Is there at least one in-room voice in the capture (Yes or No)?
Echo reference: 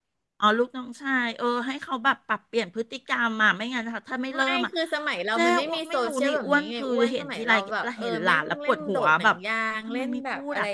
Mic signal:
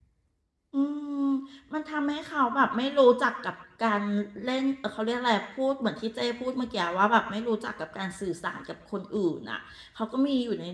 Yes